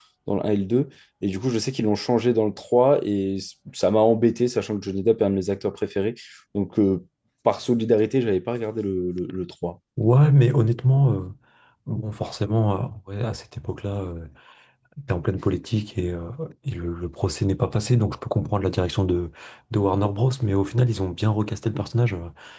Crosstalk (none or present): none